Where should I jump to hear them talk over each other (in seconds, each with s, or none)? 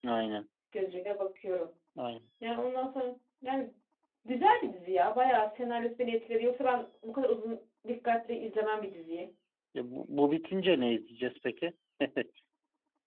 none